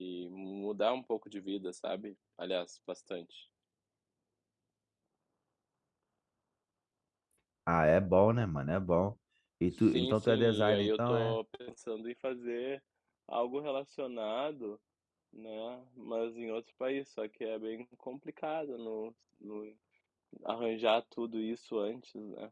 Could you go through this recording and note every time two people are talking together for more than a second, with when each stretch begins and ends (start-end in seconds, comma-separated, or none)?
9.8-11.4